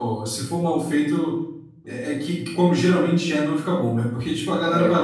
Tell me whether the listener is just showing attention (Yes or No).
Yes